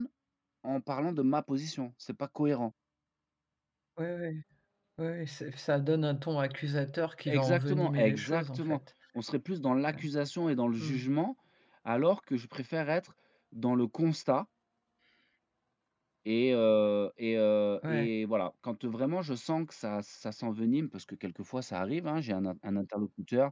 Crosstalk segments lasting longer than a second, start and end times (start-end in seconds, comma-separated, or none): 7.3-8.8